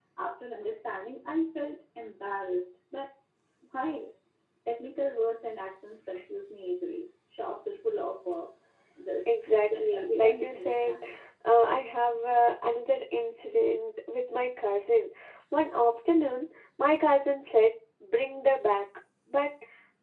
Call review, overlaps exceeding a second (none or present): present